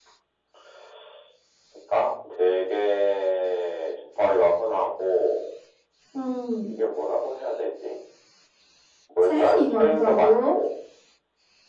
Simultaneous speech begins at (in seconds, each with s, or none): 9.3 s